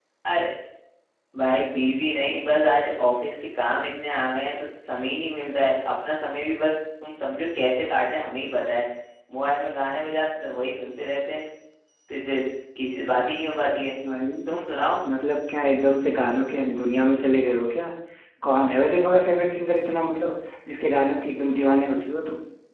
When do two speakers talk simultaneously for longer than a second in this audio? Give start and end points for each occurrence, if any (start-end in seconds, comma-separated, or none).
none